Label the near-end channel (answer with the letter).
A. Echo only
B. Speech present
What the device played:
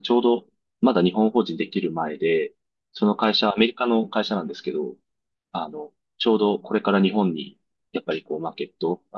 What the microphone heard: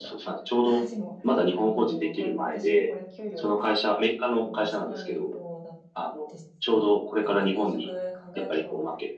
B